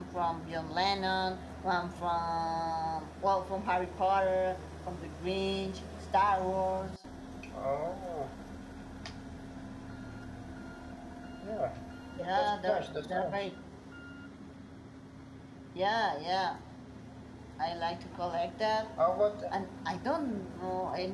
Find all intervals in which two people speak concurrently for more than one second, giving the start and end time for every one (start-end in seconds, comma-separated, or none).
12.2-13.5